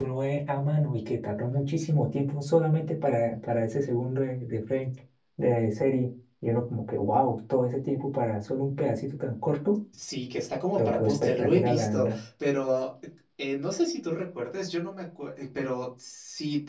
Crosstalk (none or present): present